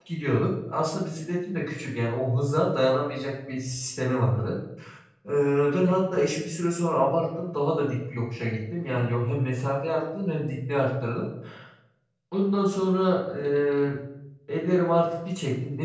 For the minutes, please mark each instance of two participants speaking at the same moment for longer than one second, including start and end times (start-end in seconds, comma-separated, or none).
none